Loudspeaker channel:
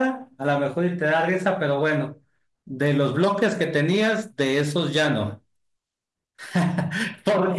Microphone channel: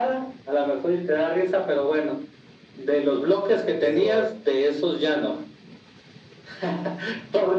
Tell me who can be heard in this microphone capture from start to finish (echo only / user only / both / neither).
both